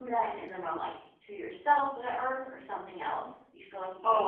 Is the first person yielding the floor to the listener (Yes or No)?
Yes